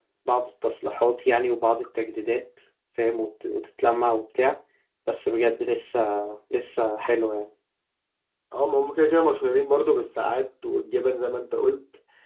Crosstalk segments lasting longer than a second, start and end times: none

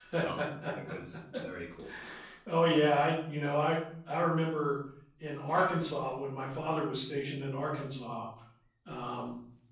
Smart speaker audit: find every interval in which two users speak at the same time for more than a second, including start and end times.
none

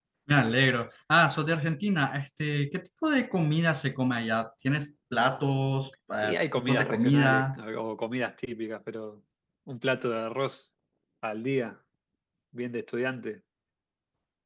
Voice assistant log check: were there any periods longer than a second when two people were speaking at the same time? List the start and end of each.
6.2-7.6

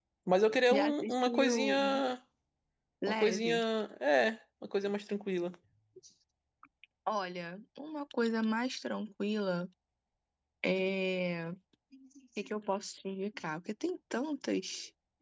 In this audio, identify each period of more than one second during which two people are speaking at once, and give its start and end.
0.7-2.0

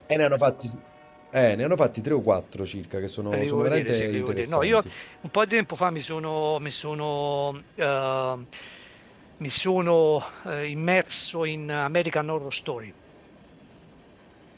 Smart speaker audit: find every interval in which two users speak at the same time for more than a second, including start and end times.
3.3-4.8

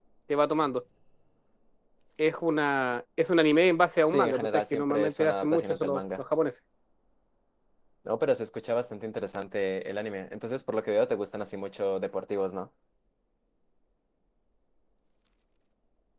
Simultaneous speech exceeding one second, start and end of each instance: 4.0-6.2

